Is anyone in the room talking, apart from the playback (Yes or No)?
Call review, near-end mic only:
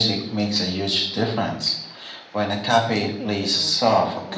Yes